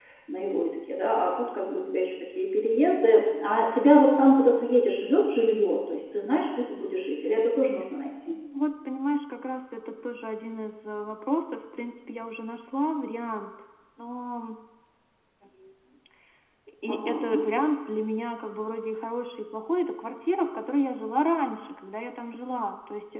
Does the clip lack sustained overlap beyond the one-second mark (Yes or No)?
Yes